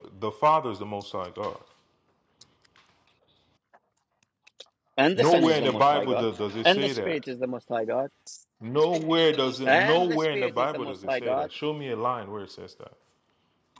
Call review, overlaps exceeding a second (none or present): present